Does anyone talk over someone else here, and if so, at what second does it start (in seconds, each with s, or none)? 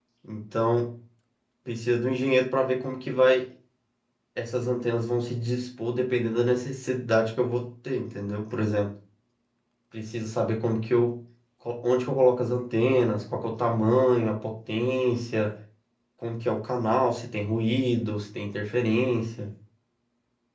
none